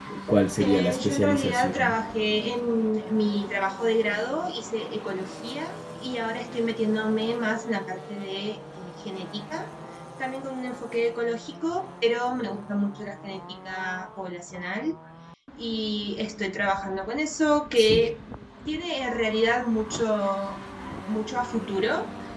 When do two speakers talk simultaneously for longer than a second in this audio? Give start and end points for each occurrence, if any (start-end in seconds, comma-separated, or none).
0.6-2.0